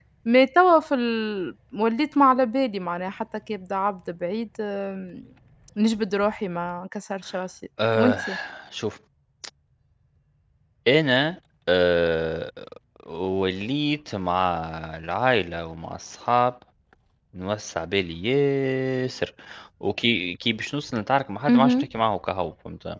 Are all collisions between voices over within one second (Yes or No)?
Yes